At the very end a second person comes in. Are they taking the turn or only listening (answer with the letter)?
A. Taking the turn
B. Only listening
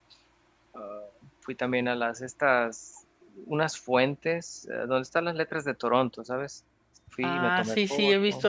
A